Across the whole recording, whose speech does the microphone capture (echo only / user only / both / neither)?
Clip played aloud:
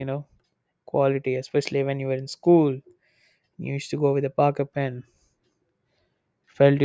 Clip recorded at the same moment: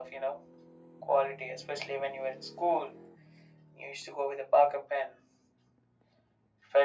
echo only